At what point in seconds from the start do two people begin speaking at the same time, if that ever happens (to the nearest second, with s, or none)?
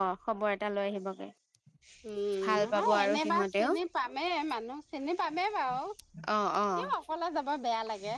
2 s